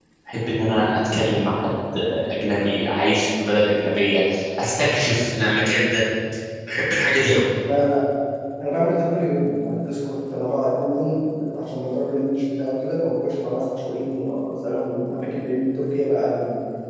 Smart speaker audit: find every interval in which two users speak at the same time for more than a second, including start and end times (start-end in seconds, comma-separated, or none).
none